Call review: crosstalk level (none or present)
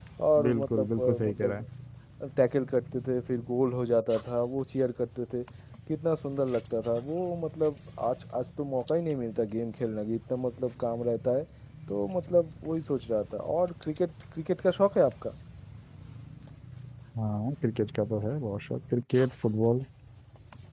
present